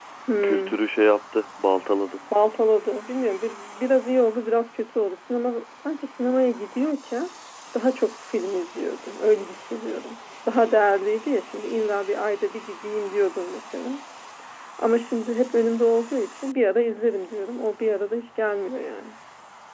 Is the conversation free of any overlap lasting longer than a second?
Yes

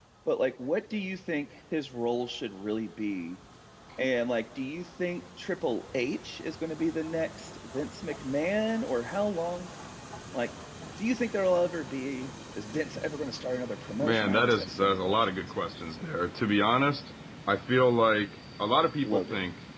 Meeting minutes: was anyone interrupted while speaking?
Yes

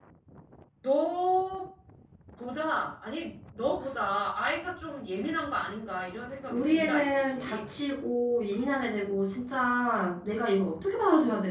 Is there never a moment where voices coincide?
No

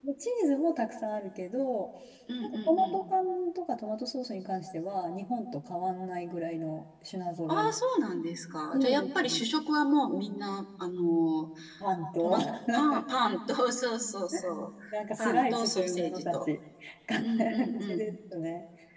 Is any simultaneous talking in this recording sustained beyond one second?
Yes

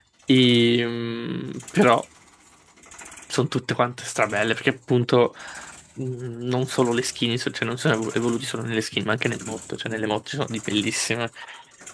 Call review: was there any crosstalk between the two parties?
No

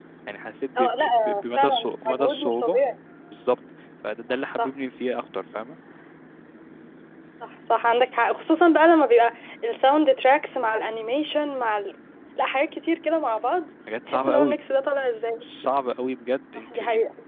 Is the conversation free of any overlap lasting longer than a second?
No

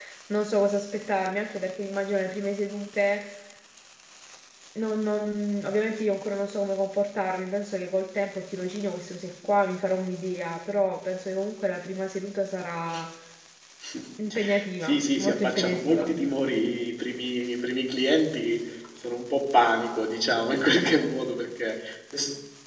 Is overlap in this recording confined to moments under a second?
No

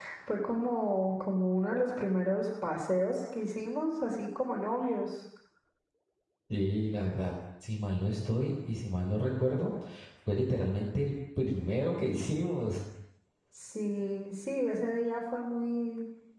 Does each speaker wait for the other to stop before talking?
Yes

